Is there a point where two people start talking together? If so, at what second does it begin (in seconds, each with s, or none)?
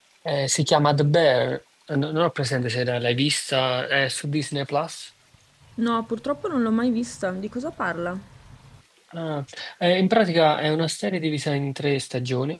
none